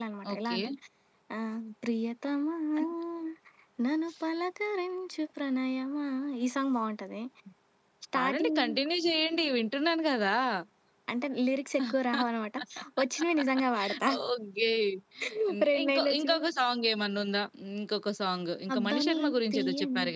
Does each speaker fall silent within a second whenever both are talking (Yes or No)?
No